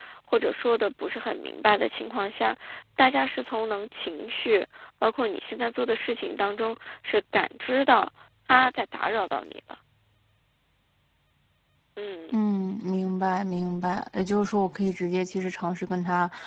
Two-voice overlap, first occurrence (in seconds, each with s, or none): none